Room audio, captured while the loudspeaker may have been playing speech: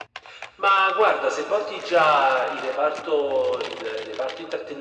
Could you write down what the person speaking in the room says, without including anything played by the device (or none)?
none